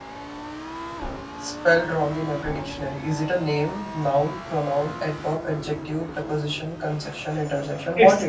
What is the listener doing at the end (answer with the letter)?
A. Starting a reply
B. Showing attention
A